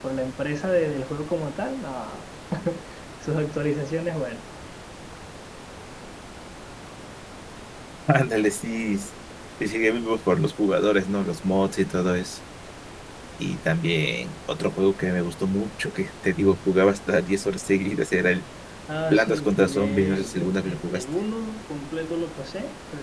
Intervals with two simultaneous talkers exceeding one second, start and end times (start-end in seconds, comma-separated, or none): 19.1-21.1